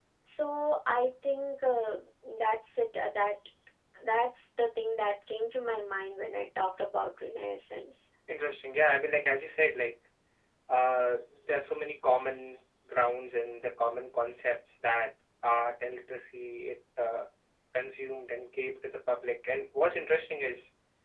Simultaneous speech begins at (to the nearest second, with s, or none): none